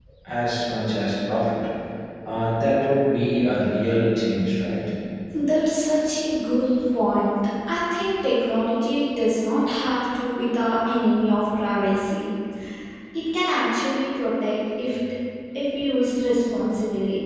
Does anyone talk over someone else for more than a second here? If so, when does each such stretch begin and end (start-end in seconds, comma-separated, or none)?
none